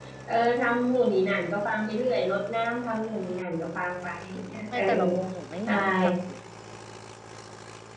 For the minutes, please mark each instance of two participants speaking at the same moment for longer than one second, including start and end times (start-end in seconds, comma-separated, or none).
none